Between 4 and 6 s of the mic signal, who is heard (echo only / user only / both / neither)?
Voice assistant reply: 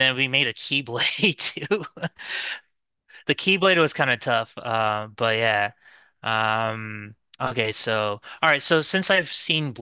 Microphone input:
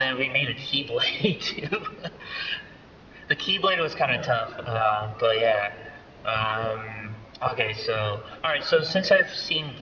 echo only